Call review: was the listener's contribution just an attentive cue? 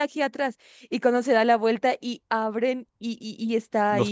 Yes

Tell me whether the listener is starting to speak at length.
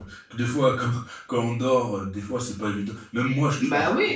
No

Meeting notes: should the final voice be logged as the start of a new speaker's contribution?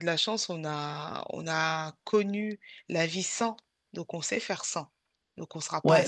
Yes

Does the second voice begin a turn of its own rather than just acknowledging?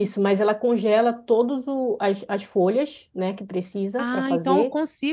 Yes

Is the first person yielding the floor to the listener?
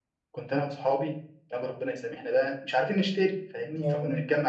No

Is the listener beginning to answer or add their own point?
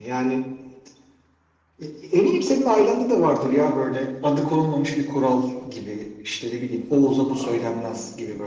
No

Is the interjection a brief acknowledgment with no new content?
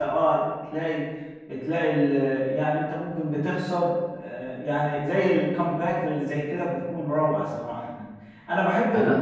Yes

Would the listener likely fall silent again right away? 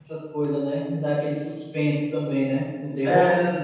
No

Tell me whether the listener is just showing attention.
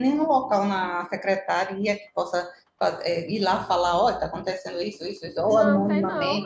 No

